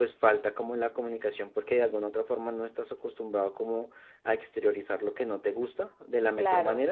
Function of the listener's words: listening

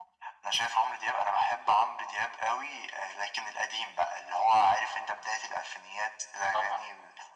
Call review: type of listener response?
listening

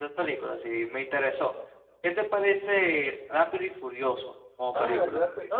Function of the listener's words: taking over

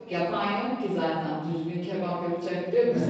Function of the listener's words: taking over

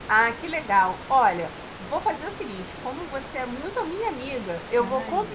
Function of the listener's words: listening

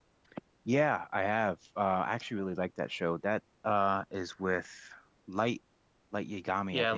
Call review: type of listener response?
taking over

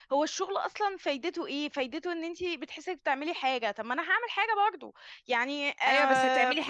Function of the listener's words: taking over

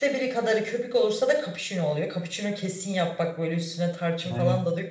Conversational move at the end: taking over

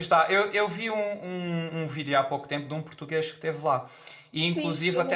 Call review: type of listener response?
taking over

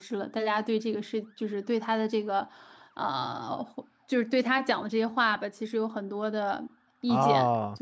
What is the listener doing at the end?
taking over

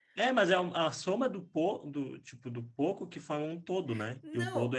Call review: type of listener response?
taking over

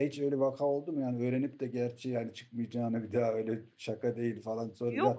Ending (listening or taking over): taking over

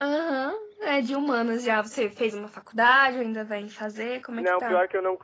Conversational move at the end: taking over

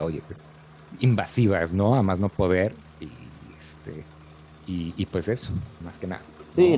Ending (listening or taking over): taking over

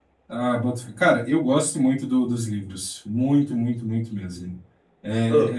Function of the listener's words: listening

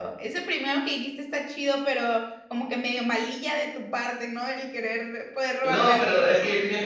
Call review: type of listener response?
taking over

